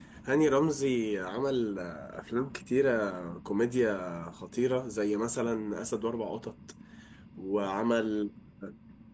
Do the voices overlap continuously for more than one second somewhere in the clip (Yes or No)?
No